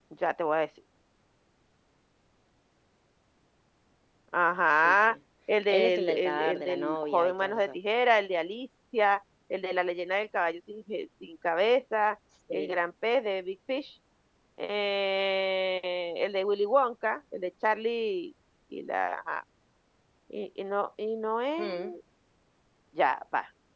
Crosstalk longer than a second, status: present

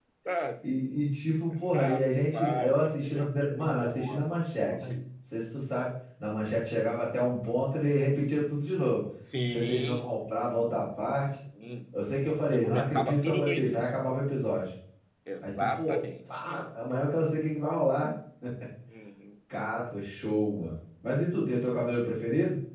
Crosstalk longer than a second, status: present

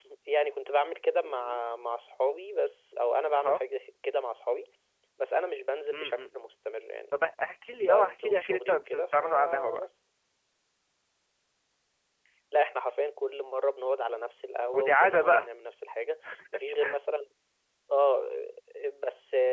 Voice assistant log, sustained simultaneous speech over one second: present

